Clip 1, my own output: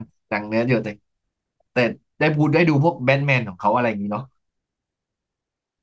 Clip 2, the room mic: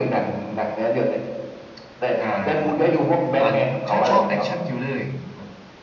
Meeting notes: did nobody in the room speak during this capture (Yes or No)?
No